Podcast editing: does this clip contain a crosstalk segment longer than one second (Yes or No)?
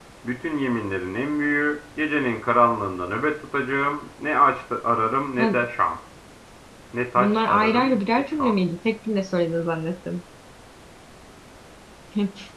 Yes